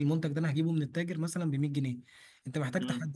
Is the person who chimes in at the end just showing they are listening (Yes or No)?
Yes